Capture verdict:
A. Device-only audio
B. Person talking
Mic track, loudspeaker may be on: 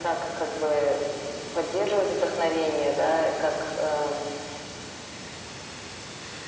A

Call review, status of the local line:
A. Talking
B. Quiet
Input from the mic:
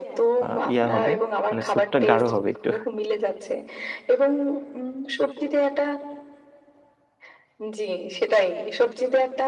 A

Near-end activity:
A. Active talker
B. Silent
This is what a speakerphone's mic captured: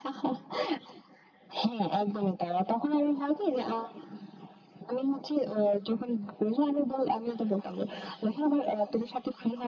B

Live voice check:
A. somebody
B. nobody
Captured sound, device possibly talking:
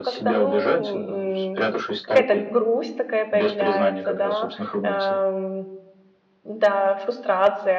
A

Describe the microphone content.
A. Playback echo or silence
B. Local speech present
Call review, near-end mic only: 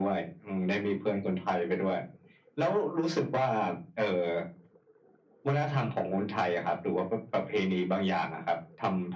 A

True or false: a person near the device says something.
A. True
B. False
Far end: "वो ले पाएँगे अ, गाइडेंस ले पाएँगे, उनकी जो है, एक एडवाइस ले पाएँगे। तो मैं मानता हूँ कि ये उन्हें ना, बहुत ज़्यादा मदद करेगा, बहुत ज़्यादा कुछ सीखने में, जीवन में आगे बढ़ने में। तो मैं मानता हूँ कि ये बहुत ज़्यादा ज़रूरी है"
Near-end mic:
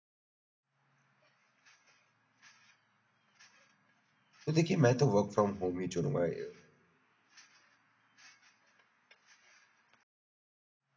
A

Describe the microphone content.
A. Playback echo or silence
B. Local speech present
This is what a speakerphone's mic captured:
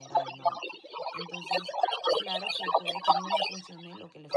B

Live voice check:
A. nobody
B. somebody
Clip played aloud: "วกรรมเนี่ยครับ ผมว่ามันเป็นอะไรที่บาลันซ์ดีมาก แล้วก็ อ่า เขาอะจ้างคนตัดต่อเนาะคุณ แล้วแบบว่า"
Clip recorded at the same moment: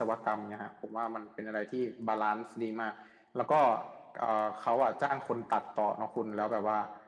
A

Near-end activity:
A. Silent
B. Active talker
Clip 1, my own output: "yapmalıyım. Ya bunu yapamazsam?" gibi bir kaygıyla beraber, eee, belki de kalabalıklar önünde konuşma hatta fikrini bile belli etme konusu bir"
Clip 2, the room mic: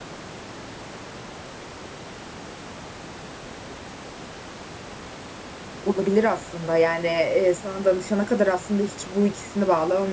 B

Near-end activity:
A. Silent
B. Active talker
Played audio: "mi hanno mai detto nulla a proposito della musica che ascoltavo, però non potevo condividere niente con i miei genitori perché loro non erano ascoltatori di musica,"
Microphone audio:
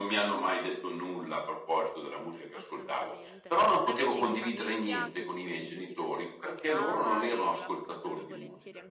B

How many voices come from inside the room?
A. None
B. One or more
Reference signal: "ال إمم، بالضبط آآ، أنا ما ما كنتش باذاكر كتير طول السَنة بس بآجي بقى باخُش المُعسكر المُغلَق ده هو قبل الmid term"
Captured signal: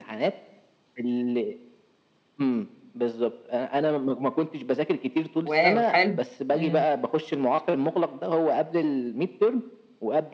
B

